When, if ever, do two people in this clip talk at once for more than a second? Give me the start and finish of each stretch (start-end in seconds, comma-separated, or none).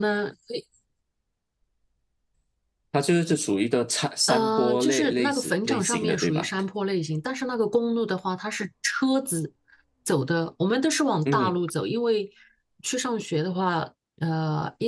4.3-6.5